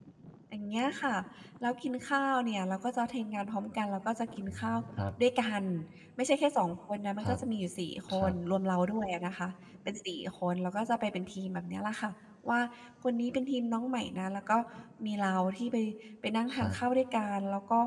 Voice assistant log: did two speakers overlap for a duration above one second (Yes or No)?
No